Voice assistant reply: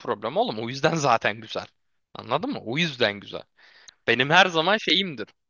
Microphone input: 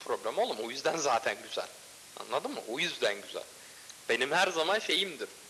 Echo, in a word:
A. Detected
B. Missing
A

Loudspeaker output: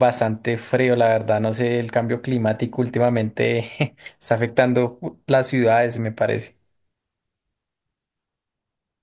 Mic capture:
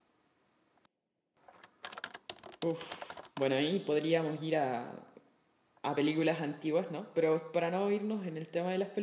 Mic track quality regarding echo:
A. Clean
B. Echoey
A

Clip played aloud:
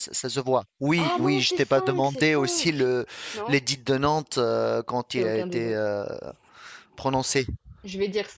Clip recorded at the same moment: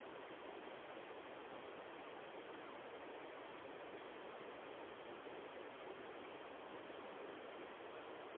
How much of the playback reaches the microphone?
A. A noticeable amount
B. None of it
B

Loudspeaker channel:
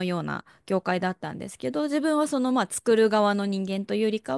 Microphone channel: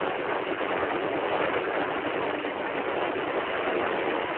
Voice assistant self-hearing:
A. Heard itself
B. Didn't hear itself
B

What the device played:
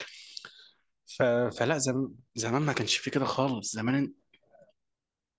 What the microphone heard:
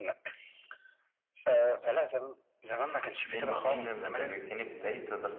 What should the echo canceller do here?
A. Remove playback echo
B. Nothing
A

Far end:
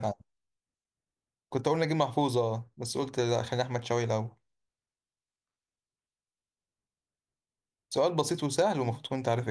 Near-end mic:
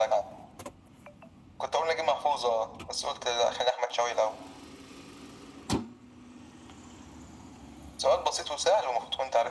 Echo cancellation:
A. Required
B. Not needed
A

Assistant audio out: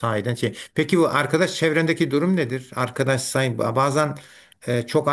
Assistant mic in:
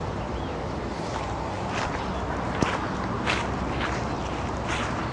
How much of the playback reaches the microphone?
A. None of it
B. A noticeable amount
A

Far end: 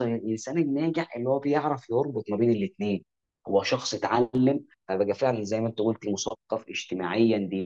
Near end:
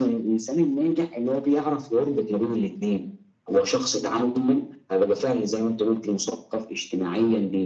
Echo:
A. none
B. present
B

